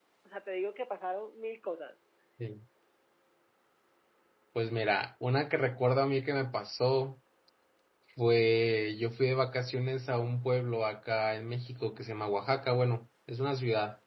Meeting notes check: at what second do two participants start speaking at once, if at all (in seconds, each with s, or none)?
none